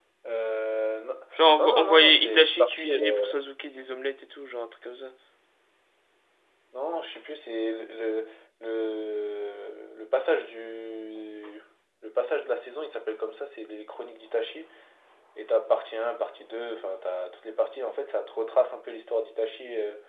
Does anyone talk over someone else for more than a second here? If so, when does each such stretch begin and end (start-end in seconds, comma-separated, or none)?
1.6-3.3